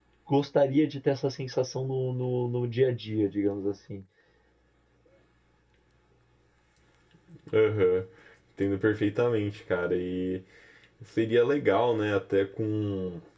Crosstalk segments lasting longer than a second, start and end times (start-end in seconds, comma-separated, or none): none